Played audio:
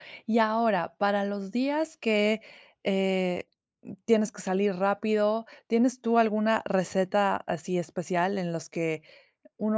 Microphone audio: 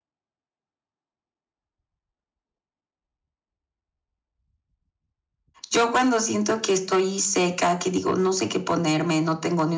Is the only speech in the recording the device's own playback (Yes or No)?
No